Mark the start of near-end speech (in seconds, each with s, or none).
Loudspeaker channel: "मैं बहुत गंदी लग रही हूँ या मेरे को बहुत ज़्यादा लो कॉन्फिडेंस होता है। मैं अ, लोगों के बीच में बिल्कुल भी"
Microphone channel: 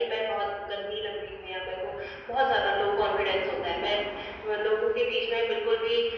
none